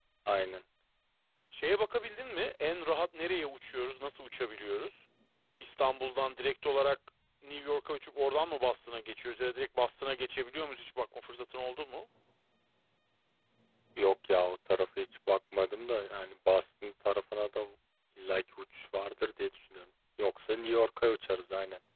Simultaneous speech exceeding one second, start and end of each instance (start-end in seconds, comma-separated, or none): none